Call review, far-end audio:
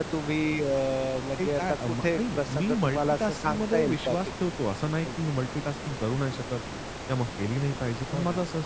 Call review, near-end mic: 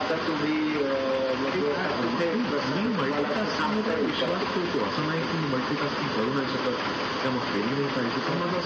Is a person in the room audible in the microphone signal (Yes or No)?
No